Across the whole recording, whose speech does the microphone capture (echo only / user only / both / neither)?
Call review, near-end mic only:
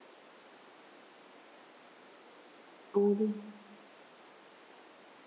user only